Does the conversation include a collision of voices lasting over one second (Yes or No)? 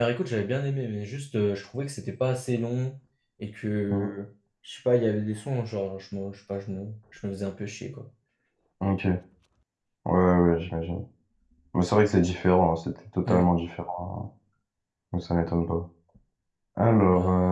No